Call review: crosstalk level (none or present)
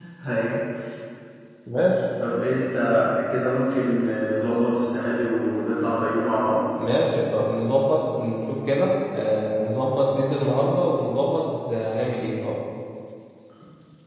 none